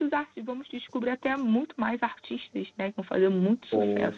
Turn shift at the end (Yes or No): Yes